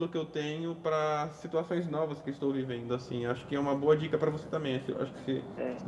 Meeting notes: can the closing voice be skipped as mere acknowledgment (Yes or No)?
No